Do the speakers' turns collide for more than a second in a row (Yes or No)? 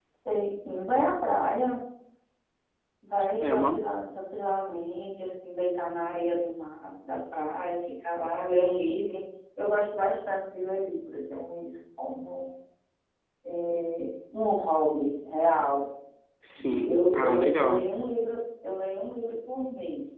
Yes